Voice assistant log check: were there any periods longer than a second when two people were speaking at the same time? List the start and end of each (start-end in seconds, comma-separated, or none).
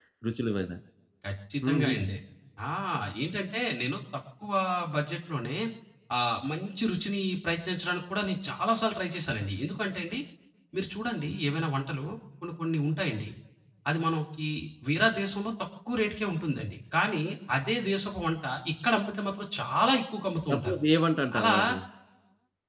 none